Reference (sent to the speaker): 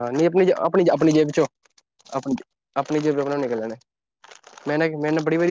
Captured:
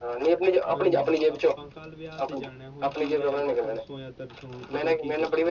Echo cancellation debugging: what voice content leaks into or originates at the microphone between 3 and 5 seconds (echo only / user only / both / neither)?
both